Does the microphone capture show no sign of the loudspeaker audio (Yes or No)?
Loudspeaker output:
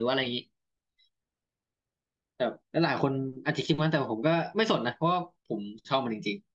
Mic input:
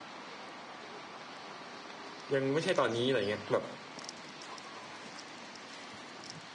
Yes